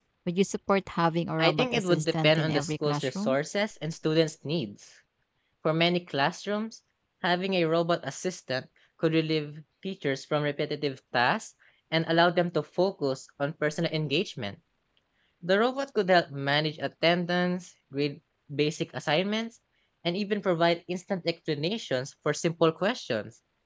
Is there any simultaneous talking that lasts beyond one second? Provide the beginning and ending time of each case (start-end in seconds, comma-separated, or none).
1.4-3.4